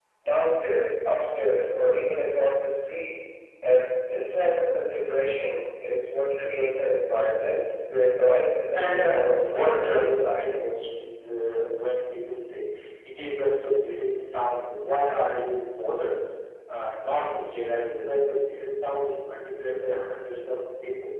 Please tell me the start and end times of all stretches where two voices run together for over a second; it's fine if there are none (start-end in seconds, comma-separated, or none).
8.7-10.4